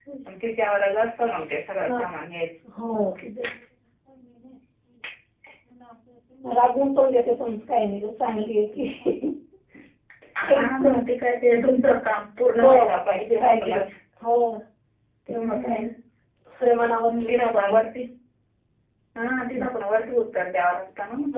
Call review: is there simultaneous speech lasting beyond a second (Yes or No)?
Yes